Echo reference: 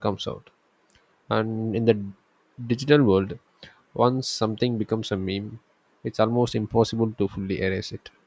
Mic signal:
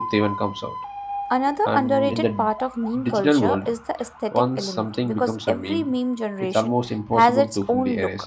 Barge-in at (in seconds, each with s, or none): 1.3 s